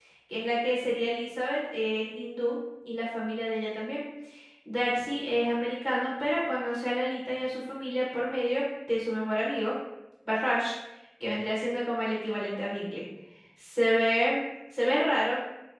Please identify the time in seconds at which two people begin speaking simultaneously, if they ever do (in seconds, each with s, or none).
none